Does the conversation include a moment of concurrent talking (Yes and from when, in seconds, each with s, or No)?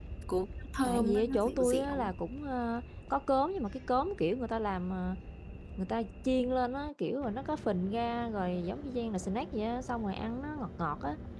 Yes, from 0.8 s